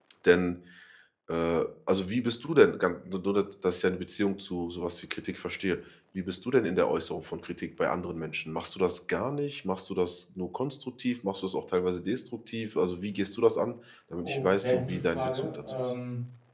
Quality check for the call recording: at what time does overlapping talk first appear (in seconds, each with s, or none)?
14.2 s